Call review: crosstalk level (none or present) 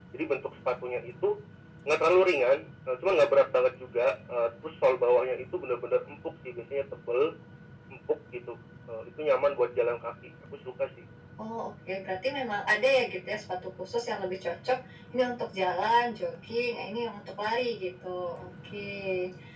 none